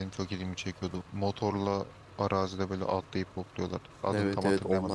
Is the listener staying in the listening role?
No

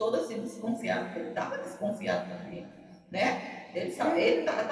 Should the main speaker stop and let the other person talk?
No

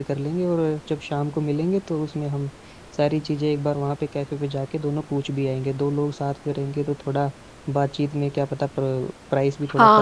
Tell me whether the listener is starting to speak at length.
Yes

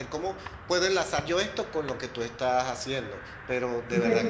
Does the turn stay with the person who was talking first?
No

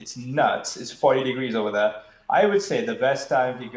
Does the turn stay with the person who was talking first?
Yes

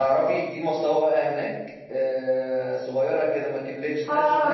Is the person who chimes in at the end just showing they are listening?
No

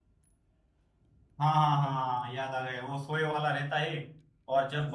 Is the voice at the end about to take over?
No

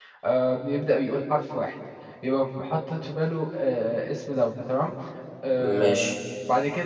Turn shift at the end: No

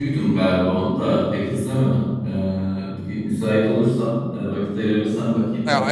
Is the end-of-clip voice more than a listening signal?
Yes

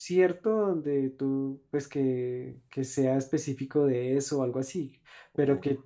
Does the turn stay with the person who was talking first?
Yes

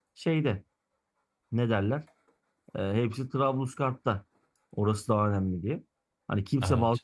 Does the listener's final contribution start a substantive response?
No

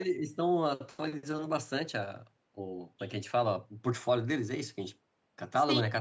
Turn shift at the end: Yes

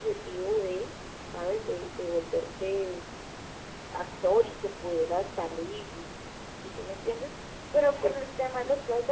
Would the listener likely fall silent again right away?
Yes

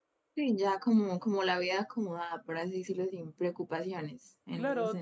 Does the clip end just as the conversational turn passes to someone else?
Yes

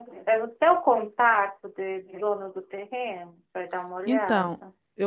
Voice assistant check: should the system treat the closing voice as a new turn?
Yes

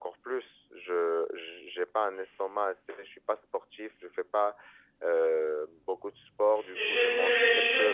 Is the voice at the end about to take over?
Yes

